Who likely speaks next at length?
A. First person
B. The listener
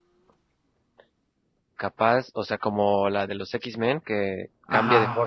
B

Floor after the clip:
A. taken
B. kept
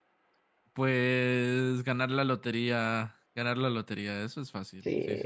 A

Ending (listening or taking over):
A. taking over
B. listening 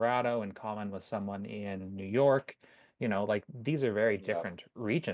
B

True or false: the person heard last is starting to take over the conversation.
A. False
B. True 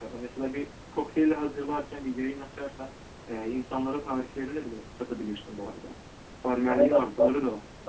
B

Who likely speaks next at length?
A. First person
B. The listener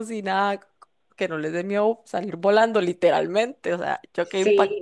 B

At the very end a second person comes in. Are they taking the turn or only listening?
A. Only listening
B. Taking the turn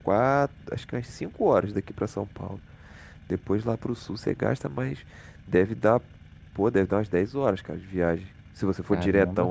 B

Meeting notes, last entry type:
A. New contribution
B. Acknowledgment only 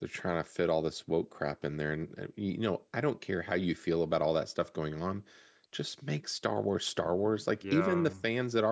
B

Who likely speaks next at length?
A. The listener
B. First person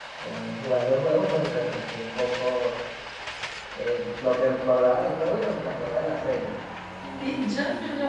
A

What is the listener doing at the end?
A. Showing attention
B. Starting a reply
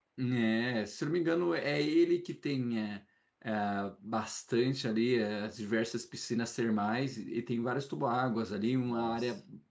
A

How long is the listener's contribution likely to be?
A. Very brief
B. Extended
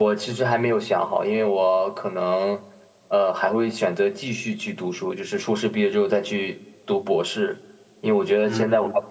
A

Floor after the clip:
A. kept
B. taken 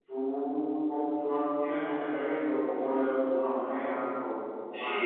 B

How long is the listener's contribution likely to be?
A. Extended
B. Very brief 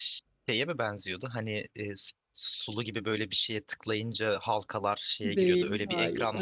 A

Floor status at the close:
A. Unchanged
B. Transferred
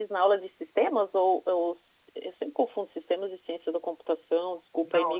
B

